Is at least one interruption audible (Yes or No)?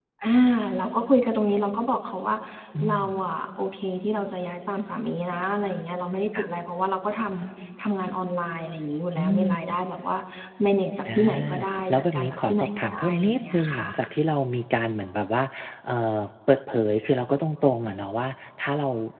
Yes